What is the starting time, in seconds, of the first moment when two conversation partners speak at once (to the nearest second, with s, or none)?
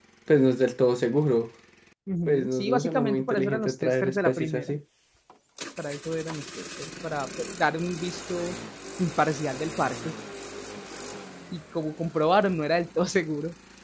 2 s